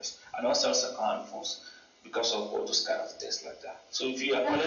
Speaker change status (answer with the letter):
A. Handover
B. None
B